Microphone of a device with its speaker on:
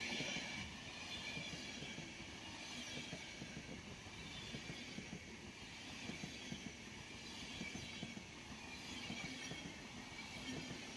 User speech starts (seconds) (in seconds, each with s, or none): none